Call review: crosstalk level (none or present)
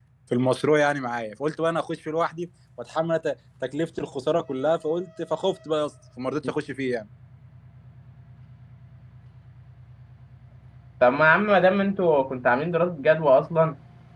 none